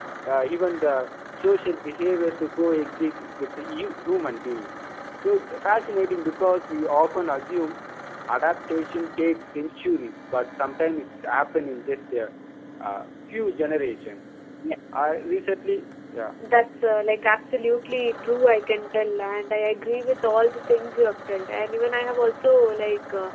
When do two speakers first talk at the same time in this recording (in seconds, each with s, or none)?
none